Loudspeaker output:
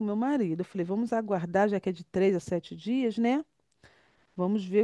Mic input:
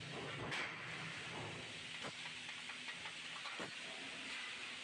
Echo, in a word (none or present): none